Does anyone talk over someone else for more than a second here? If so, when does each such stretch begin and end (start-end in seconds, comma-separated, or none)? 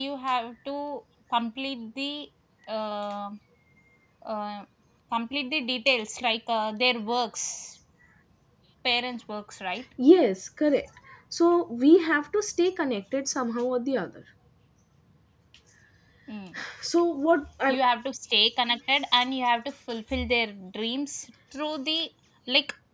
none